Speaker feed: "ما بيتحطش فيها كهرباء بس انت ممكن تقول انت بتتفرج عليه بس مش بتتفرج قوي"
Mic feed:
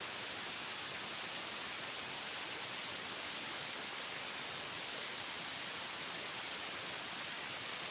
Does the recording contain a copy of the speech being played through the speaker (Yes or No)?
No